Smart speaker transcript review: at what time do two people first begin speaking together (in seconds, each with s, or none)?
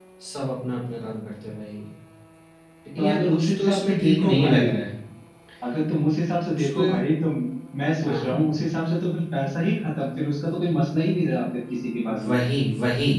3.0 s